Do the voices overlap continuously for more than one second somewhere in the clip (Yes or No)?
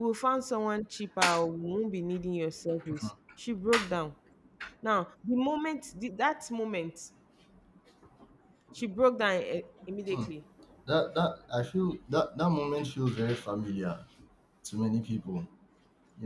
No